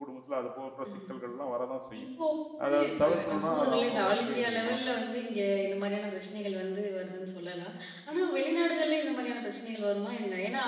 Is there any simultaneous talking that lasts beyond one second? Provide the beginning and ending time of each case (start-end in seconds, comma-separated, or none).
2.6-4.8